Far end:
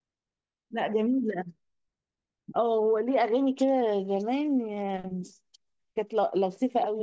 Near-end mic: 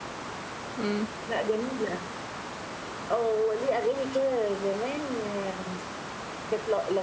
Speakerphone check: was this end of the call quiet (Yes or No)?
No